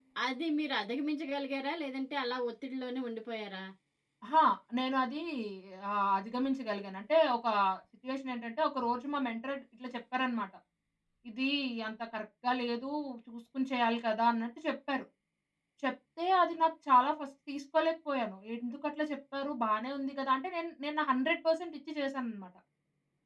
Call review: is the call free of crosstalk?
Yes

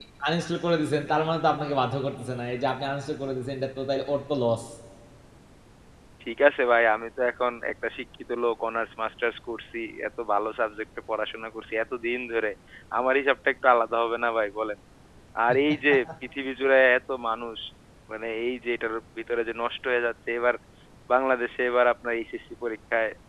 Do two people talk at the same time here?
No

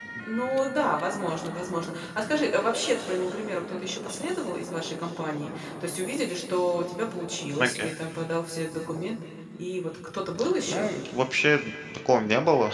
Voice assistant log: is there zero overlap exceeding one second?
Yes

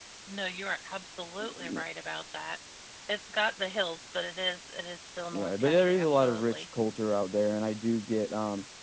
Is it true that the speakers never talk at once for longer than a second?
No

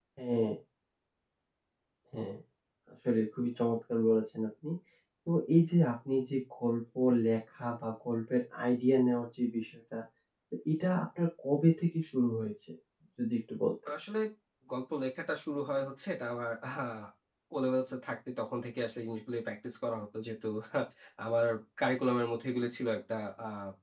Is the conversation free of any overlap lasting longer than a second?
Yes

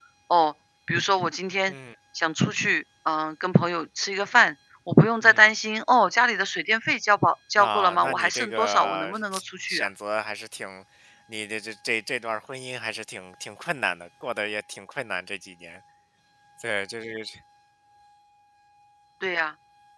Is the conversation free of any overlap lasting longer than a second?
No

